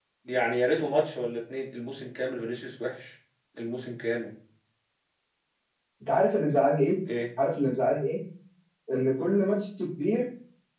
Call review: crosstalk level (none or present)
none